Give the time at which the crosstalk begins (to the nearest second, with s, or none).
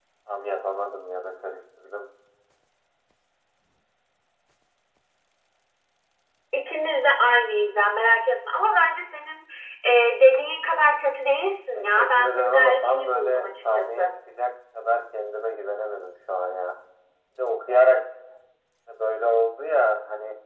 12 s